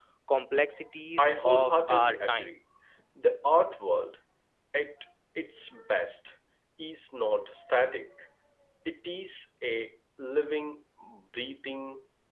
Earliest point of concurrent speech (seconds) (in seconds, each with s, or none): 1.2 s